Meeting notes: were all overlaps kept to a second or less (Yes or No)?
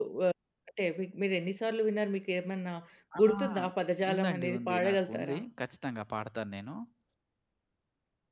No